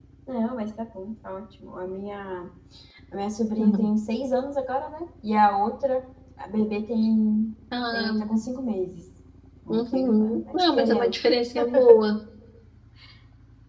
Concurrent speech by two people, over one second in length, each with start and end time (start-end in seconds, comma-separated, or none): 9.7-11.1